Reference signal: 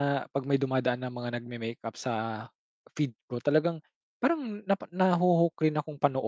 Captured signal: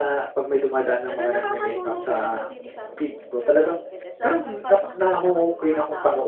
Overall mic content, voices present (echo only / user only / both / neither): both